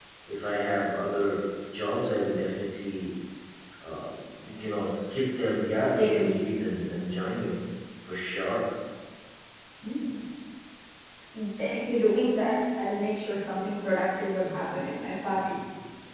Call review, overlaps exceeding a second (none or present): none